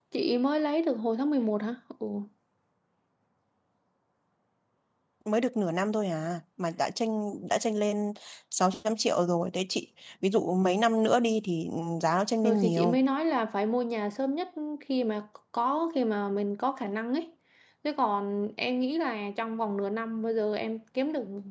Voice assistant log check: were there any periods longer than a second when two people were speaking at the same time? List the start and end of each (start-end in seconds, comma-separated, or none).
none